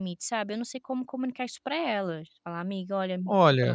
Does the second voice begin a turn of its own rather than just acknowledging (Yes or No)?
Yes